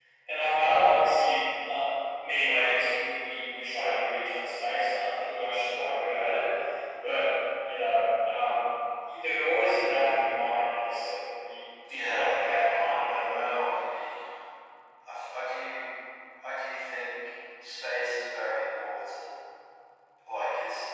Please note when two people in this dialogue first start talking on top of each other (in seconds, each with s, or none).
11.8 s